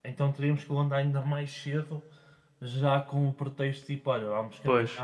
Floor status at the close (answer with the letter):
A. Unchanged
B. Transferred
A